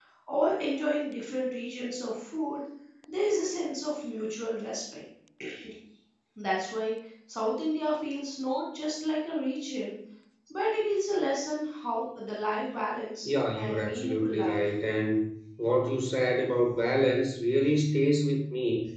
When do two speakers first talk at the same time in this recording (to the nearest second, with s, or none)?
13 s